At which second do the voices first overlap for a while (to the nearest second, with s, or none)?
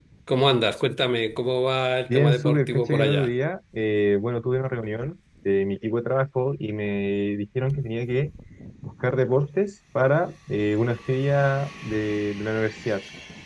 2 s